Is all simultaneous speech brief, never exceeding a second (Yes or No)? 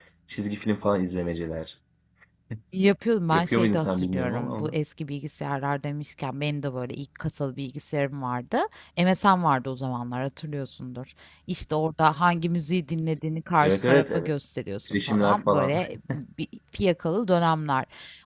No